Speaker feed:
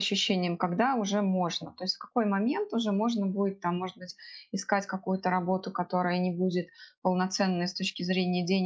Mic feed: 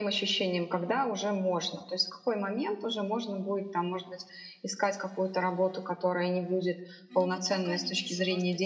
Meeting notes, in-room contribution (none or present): present